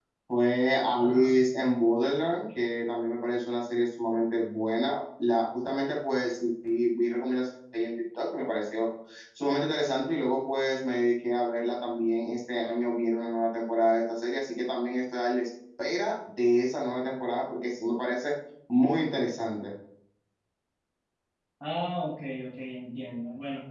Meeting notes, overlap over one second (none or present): none